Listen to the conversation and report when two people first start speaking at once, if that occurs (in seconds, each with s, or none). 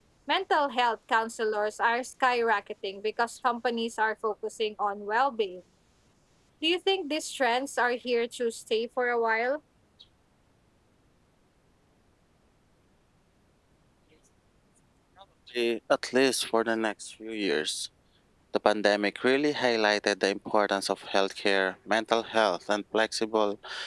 none